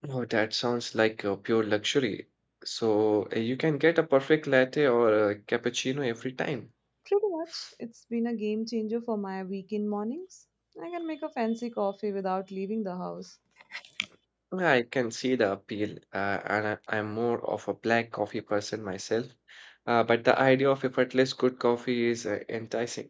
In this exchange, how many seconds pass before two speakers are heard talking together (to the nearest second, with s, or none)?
none